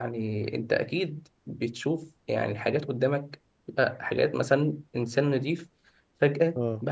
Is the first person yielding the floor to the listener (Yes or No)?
No